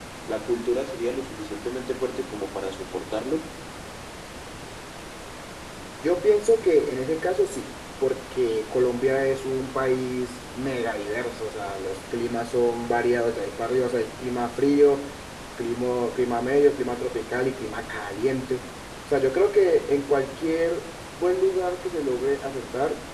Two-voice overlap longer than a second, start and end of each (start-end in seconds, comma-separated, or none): none